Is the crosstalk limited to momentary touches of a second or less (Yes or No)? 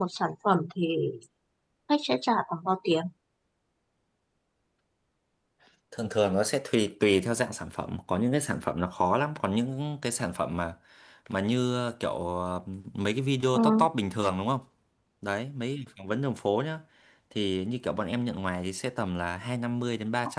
Yes